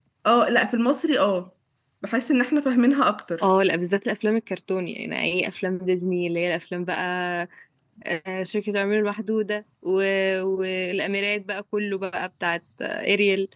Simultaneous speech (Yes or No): No